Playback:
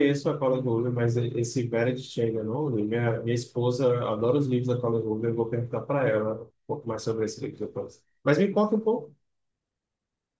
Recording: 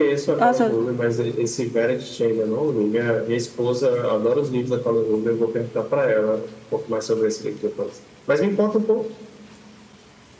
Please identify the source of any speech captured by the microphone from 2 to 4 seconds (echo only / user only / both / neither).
echo only